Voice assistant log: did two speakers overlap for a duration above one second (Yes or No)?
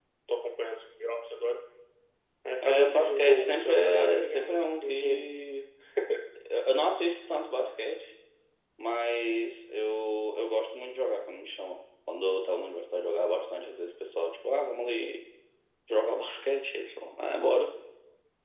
Yes